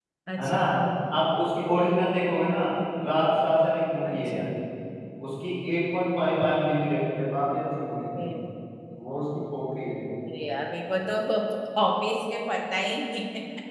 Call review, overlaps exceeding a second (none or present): none